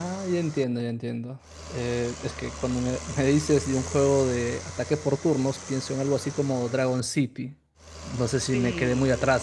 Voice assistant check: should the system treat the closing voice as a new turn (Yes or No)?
No